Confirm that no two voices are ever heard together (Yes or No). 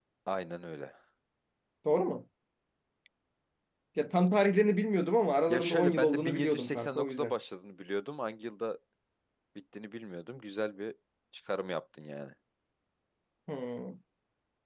No